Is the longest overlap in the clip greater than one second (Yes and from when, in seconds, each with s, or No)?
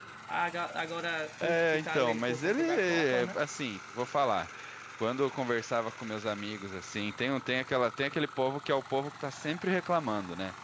Yes, from 1.4 s